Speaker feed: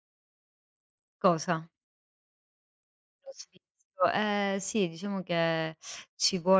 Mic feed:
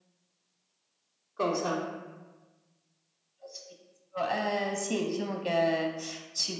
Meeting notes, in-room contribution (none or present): none